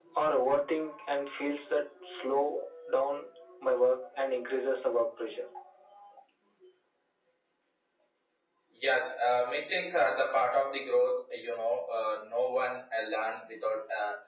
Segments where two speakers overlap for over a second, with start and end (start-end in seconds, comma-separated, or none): none